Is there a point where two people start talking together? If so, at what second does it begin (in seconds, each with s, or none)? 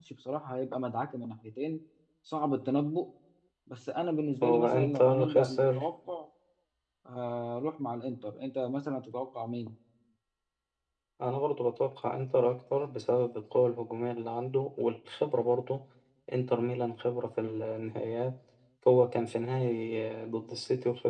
4.4 s